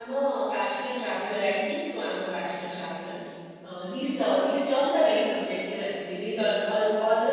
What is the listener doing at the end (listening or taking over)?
listening